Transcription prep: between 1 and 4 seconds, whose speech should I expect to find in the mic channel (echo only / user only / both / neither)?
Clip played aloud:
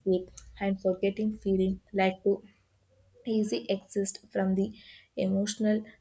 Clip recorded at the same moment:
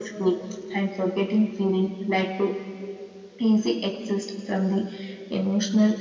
echo only